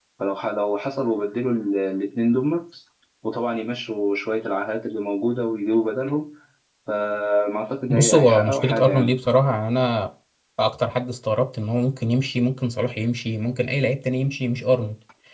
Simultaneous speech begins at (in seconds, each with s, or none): 7.9 s